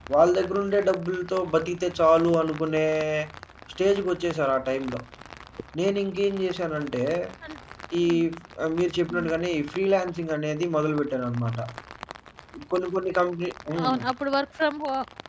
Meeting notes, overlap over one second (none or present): none